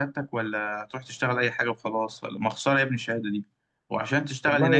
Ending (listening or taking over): listening